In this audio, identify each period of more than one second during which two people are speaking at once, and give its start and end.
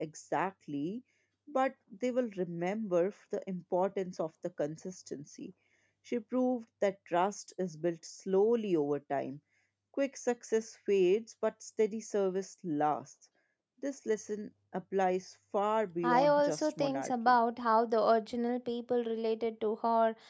16.0-17.4

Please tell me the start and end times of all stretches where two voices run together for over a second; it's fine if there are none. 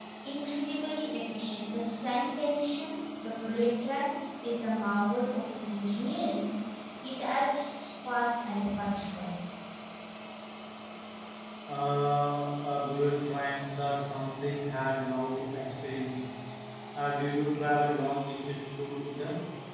none

